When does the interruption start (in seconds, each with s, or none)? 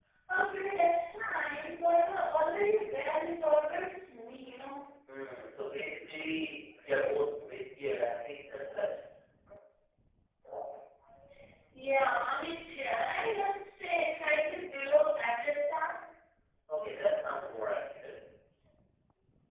none